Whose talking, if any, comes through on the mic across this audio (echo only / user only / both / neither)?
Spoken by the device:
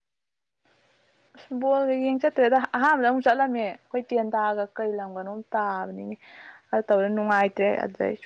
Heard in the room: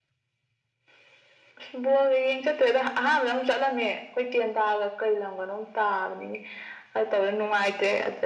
echo only